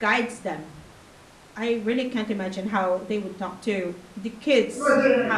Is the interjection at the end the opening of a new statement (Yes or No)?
Yes